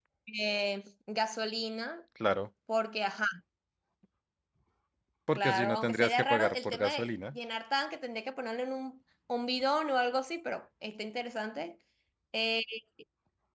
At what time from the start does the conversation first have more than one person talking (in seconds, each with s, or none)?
5.3 s